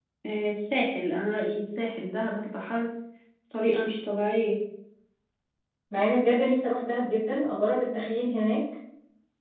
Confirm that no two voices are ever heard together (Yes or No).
Yes